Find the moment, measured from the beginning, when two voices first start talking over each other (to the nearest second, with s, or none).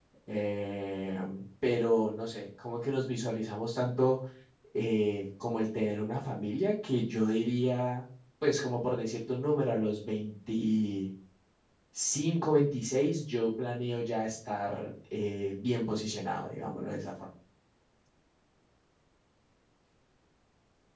none